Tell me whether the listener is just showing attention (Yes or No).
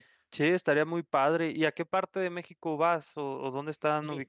No